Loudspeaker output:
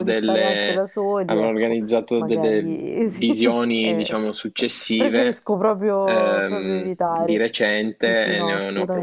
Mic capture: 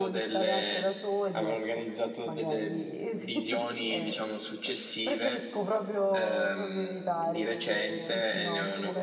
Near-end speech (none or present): present